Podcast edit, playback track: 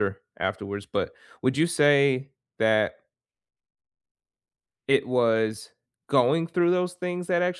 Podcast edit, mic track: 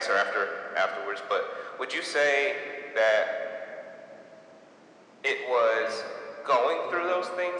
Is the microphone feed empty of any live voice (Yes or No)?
No